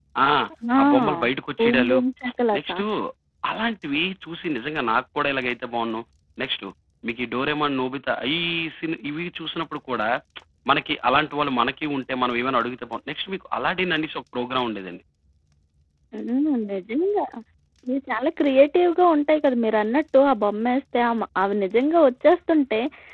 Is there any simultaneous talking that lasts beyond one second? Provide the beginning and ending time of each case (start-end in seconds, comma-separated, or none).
none